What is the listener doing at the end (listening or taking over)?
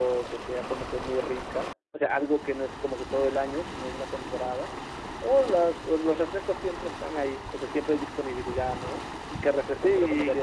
listening